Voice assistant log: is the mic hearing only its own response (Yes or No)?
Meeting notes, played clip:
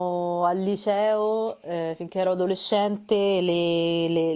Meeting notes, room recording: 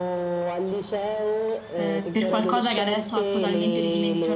No